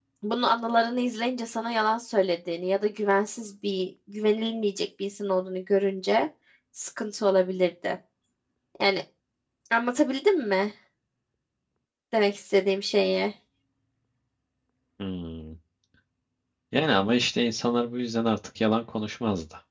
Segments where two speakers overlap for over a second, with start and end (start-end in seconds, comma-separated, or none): none